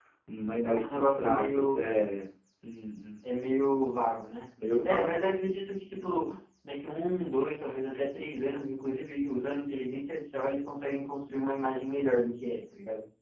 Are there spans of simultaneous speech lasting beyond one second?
Yes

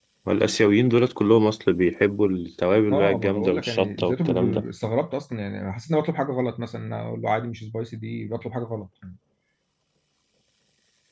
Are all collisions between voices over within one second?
No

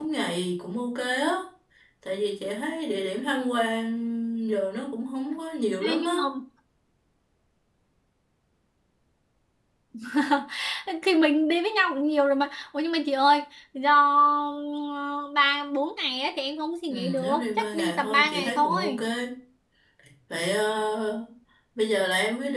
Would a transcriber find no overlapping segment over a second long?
No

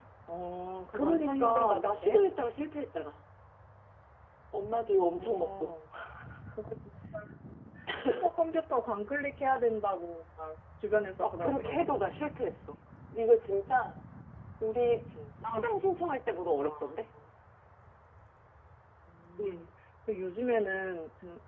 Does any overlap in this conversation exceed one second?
Yes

